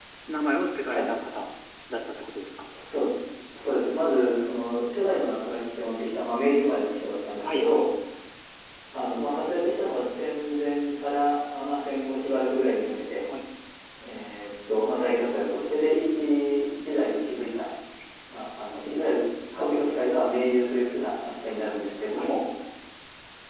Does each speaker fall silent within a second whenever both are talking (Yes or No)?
Yes